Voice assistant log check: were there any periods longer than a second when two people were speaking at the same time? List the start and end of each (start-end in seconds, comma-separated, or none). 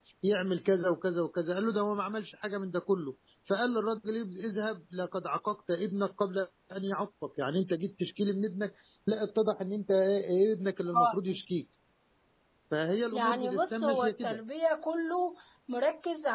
13.1-14.4